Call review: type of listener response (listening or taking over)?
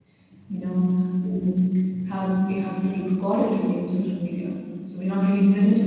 listening